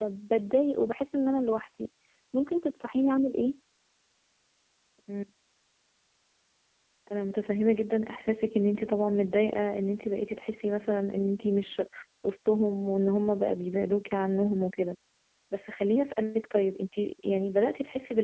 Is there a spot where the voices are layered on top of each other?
No

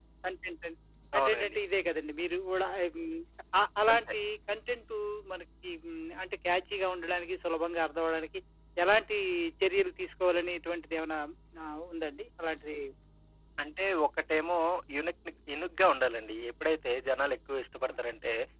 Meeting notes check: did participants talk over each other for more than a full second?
No

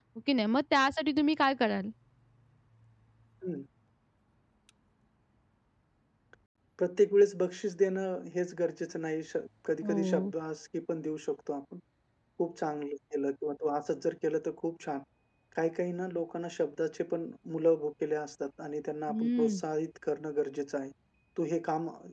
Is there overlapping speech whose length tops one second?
No

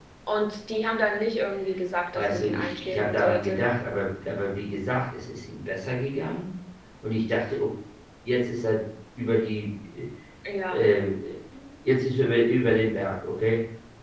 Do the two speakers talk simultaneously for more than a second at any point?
Yes, from 2.1 s

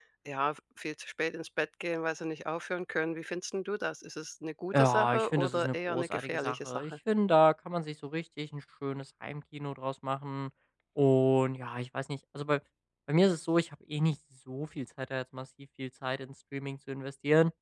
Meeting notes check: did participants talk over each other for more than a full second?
Yes, from 4.7 s

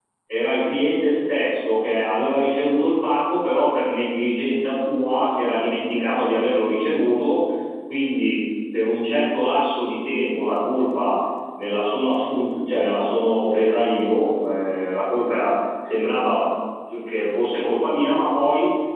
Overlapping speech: No

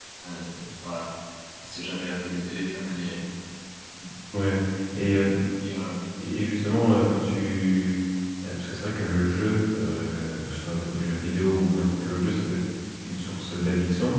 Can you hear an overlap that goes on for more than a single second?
No

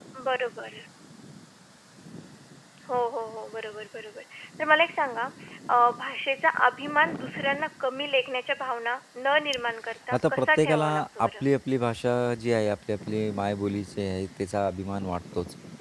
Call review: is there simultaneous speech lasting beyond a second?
Yes, from 10.1 s

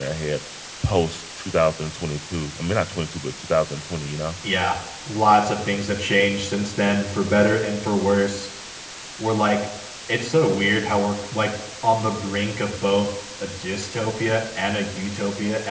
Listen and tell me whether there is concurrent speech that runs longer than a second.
No

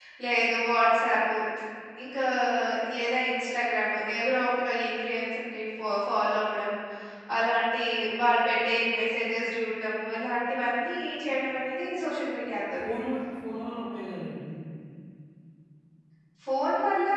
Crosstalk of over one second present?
No

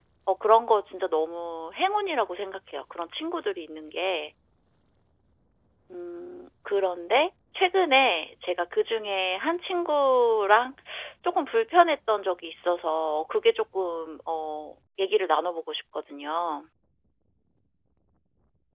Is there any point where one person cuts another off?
No

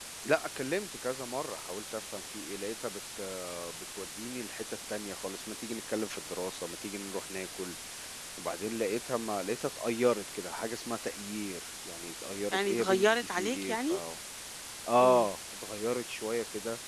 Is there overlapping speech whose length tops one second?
Yes, from 12.5 s

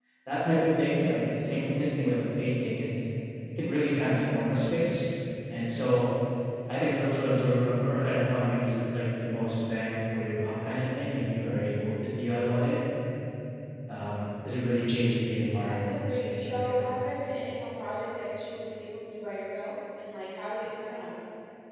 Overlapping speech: Yes, from 15.7 s

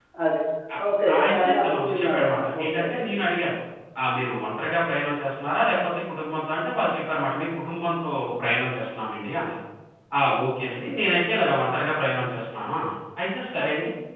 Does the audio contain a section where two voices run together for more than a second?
Yes, from 1.1 s

